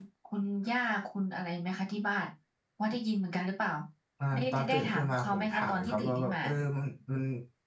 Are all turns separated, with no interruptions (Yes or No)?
No